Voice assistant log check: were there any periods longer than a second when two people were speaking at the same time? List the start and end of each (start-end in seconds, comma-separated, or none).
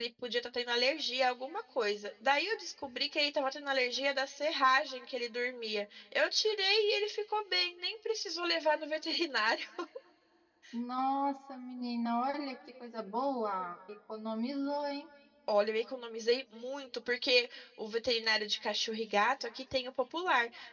none